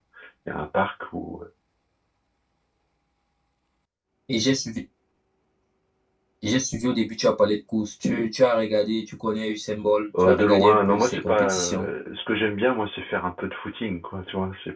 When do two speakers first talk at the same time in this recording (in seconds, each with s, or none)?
10.1 s